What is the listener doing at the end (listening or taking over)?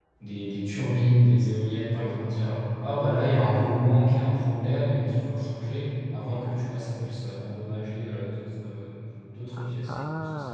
taking over